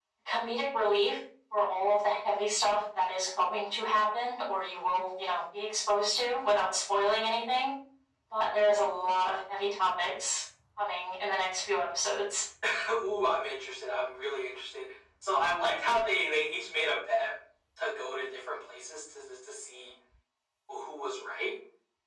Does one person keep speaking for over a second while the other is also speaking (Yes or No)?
No